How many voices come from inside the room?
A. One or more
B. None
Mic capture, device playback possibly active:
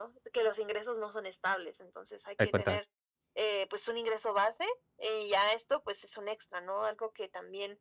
A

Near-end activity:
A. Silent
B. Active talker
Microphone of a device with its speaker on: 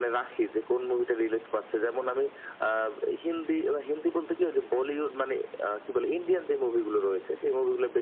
A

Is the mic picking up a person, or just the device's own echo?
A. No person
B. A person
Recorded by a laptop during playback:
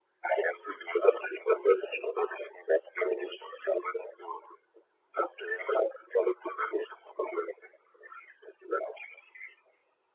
A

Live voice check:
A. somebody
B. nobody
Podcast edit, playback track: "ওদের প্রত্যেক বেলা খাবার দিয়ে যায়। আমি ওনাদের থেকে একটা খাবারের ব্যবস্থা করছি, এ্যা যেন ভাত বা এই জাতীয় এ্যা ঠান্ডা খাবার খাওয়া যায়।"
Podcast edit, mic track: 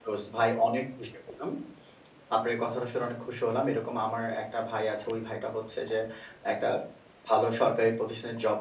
A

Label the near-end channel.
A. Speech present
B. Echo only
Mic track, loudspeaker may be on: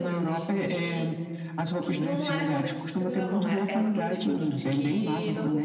A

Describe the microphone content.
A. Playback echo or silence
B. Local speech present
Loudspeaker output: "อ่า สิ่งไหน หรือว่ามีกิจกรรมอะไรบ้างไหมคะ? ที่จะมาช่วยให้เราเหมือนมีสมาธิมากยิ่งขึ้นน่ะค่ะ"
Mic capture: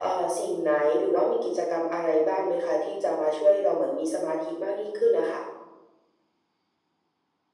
A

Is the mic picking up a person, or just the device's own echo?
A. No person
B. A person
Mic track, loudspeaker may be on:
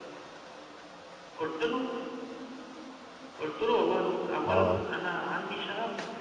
B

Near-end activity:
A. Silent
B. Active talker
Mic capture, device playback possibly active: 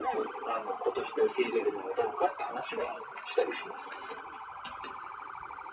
A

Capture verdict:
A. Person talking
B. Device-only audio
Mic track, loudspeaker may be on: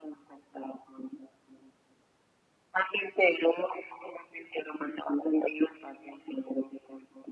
B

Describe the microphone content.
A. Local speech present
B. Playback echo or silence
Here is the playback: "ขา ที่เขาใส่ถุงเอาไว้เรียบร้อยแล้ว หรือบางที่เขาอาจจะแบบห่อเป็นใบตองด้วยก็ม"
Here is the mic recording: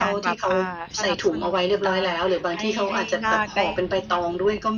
A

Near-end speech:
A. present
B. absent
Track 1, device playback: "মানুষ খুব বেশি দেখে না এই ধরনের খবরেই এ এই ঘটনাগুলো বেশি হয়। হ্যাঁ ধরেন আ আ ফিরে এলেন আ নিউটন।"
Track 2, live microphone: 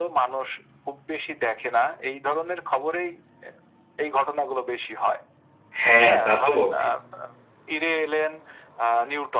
A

